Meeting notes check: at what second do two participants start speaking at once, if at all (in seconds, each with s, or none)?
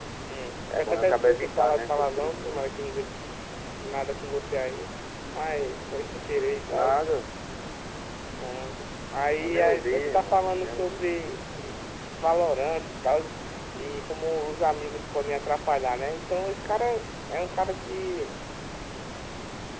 0.8 s